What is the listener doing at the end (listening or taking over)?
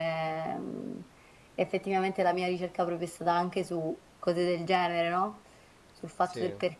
listening